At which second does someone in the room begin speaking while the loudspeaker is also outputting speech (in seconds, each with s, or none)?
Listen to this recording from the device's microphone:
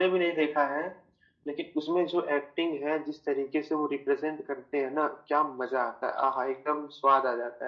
none